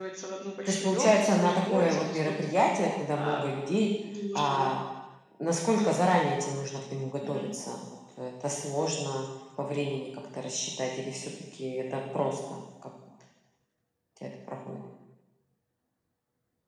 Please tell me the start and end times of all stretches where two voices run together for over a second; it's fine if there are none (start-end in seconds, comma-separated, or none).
0.7-2.2